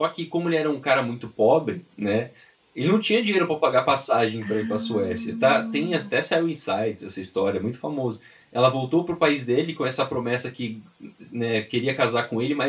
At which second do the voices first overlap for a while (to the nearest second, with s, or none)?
4 s